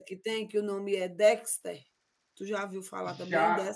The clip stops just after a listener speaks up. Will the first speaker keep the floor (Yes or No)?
No